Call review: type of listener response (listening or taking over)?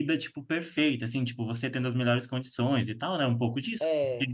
listening